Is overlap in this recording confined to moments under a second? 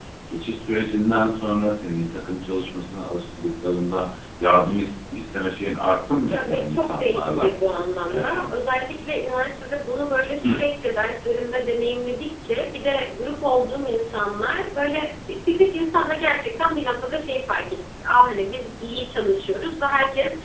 No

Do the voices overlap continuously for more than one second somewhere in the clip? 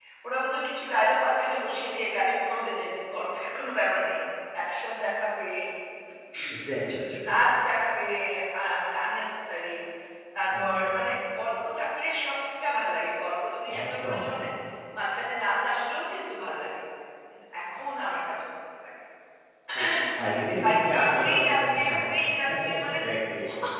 Yes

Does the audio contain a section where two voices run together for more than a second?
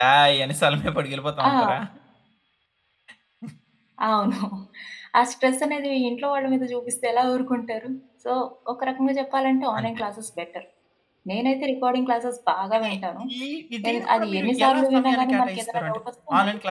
Yes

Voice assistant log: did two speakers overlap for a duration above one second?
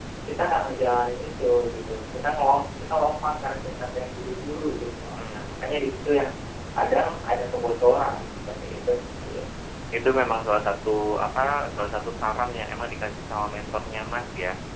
No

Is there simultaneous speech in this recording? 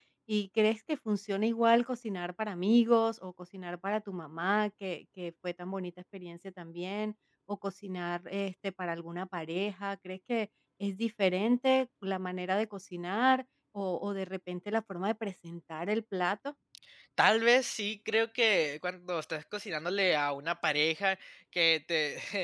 No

